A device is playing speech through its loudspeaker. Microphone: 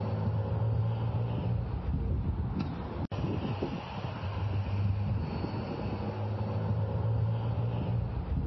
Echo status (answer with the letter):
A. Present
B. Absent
B